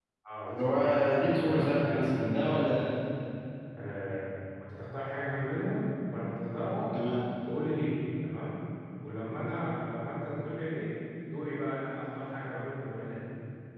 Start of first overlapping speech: 0.5 s

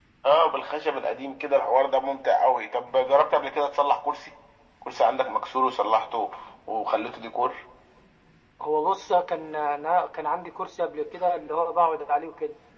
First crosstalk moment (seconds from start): none

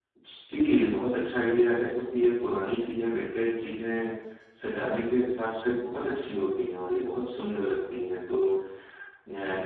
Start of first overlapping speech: none

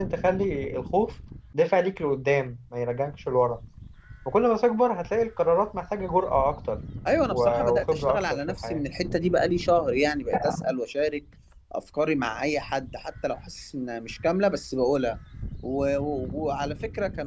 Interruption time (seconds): 7.3 s

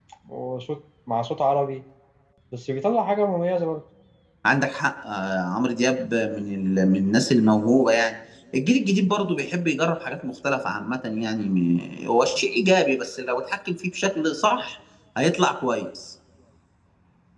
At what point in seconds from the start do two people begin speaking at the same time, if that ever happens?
none

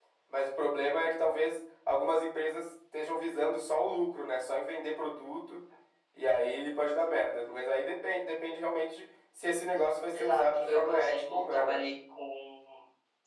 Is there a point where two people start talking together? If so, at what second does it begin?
10.1 s

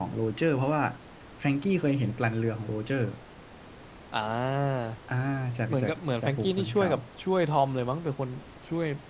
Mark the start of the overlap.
5.7 s

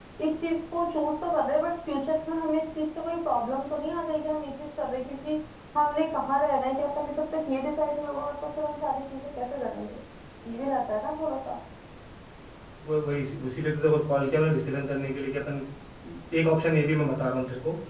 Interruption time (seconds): none

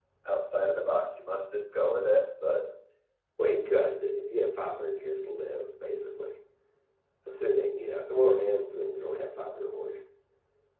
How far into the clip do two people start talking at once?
none

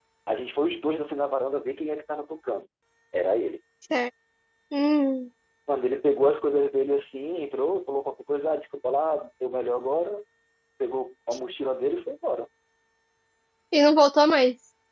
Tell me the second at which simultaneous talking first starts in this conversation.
none

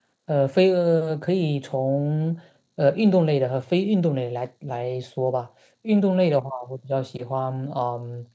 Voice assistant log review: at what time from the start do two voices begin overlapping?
none

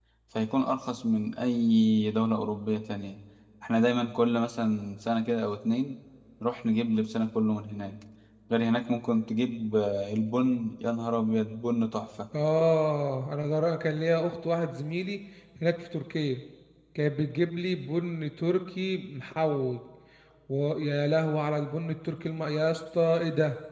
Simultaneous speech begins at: none

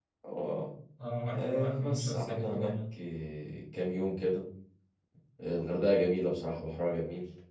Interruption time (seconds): 1.3 s

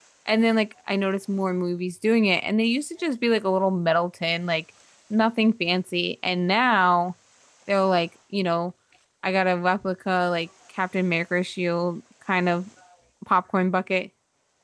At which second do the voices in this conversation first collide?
none

